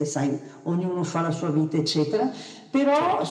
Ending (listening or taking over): listening